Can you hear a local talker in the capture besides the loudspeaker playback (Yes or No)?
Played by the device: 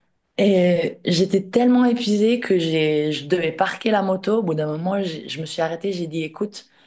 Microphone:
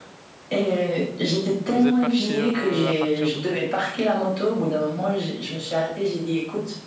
Yes